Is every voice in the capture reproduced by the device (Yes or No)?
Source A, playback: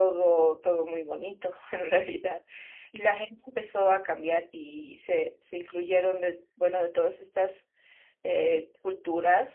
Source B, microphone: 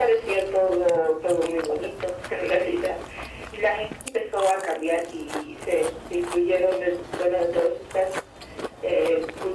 Yes